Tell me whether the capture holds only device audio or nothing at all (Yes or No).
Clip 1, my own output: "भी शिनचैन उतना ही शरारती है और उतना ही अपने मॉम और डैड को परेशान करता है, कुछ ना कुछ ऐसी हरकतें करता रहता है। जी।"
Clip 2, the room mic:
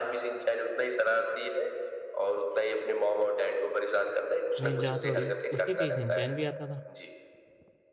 No